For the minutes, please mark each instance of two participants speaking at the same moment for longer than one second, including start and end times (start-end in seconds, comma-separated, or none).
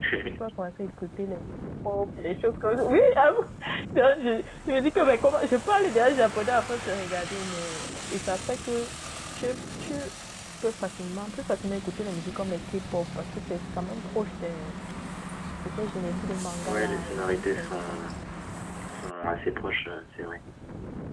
16.6-18.0